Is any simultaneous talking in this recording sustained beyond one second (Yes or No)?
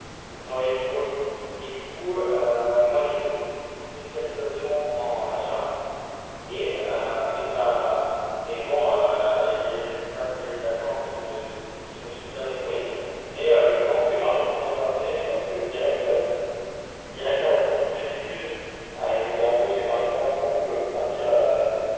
No